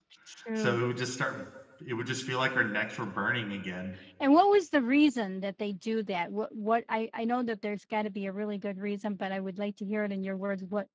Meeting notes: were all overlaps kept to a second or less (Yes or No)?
Yes